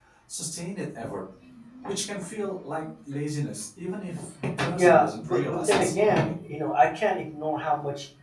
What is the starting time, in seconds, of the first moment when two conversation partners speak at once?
4.8 s

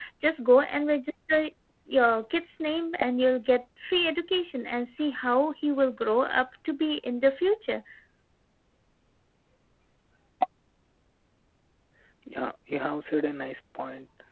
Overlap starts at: none

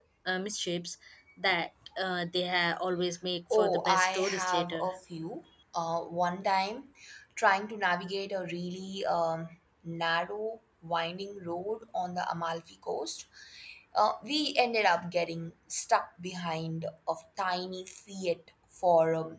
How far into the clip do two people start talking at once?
3.5 s

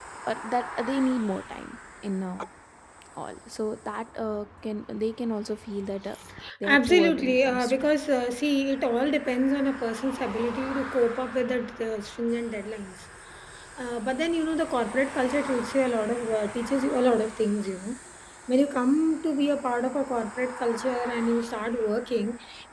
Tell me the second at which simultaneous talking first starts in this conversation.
6.7 s

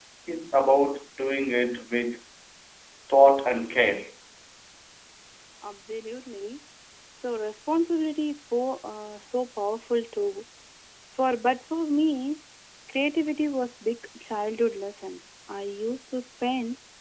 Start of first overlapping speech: none

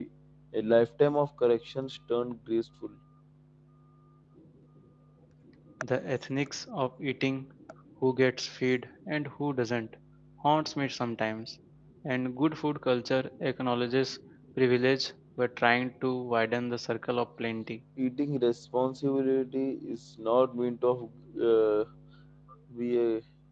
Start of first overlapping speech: none

